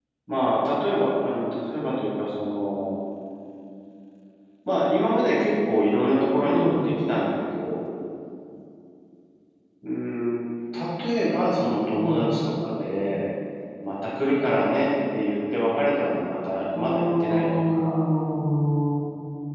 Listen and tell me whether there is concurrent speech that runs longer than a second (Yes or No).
Yes